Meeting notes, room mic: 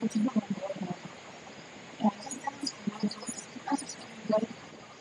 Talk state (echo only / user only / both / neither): echo only